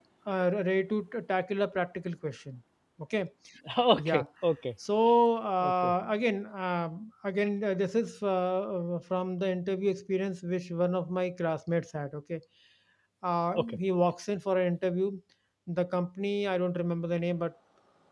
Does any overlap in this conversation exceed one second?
No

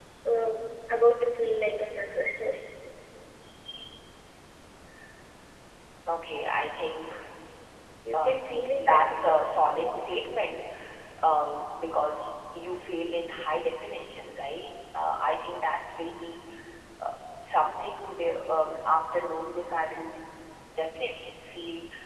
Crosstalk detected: Yes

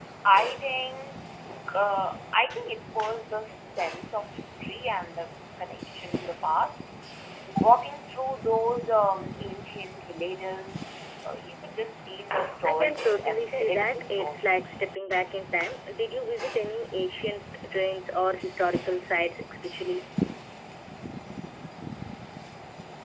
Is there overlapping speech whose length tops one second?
Yes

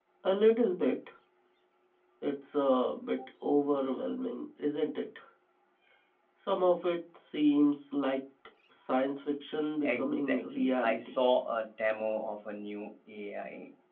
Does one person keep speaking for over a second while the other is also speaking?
Yes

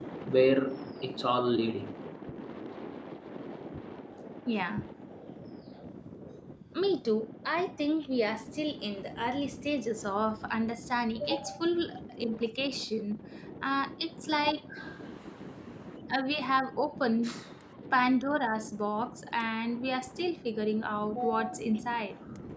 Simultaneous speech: No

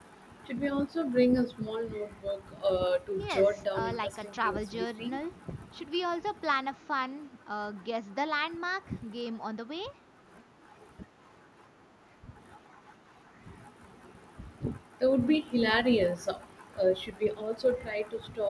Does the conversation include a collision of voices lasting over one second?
Yes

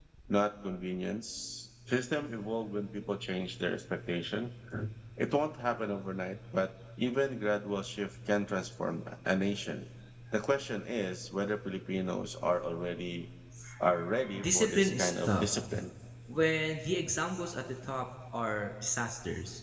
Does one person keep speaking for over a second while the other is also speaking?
Yes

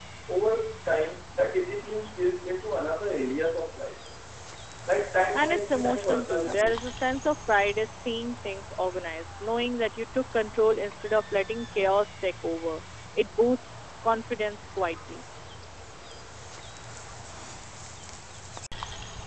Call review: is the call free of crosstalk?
No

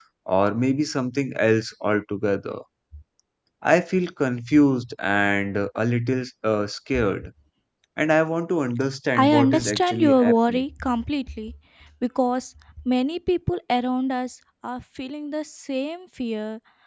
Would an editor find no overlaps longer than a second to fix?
No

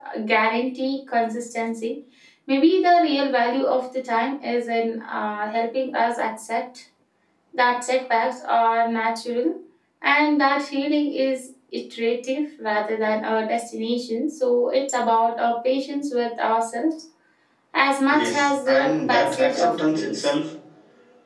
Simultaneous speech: Yes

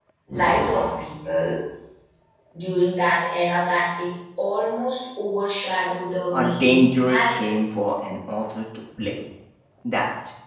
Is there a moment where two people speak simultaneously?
Yes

